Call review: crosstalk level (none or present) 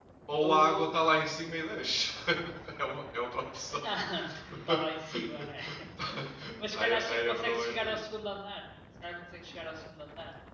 present